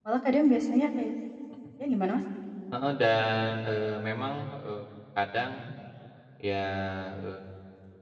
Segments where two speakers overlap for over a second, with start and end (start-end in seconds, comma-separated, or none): none